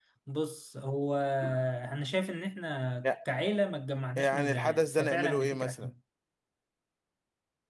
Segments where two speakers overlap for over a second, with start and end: 4.2-5.9

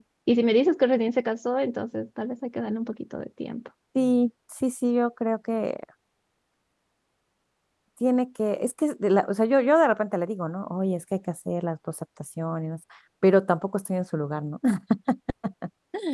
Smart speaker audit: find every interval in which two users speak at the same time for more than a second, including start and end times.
none

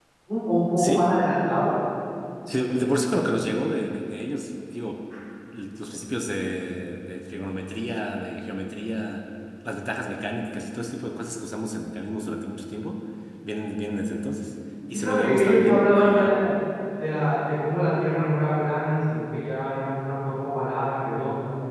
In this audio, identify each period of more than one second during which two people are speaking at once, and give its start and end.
14.9-16.4

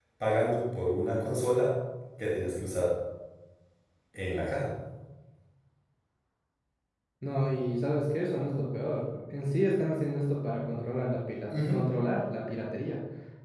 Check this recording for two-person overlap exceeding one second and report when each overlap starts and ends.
none

